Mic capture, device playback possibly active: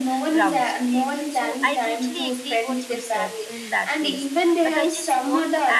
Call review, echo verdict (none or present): present